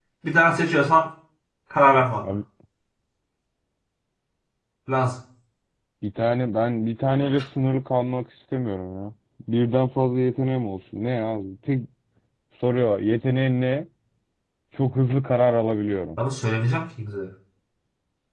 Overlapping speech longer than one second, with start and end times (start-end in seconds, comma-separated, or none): none